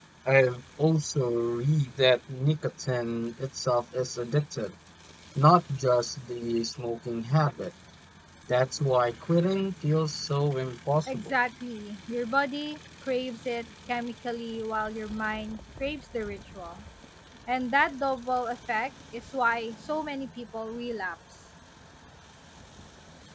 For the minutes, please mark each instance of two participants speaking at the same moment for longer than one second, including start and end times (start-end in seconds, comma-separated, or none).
none